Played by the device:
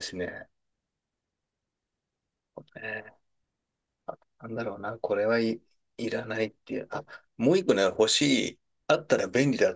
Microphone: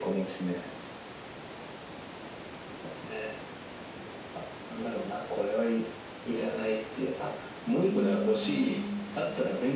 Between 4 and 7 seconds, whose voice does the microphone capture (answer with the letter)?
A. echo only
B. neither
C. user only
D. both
A